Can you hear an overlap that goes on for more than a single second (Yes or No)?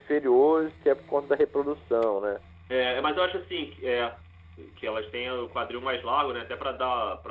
No